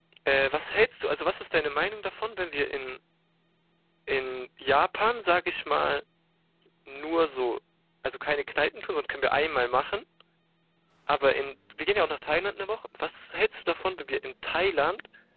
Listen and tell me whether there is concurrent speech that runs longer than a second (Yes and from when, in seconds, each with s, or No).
No